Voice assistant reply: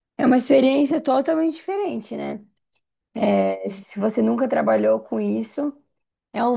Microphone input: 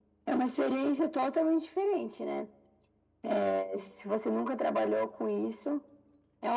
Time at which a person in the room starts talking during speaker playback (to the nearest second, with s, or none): none